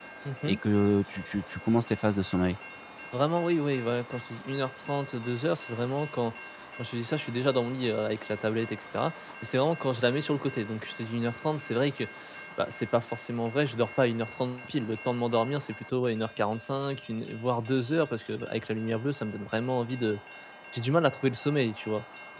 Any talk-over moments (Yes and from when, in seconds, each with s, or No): No